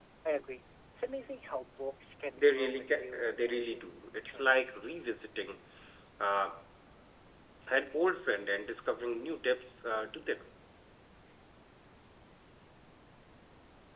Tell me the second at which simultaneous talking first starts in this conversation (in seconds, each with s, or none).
2.4 s